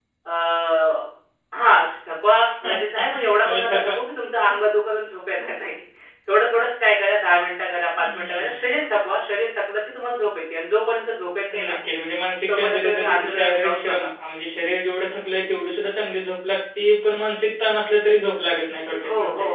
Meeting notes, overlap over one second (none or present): present